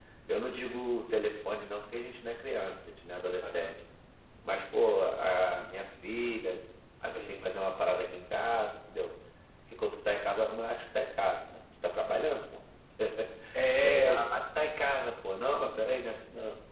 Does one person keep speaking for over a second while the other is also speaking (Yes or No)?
No